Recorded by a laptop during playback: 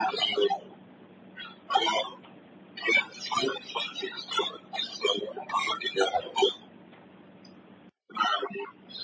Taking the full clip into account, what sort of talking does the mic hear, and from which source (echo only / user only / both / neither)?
echo only